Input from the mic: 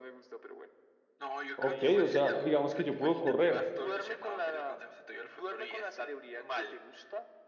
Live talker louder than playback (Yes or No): Yes